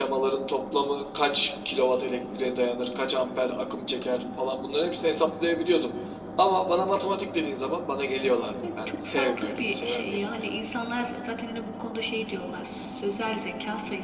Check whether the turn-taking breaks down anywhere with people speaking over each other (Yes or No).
Yes